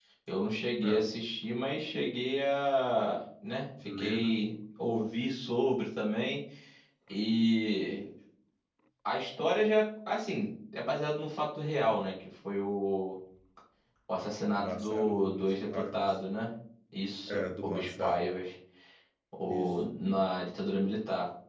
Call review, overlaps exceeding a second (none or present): present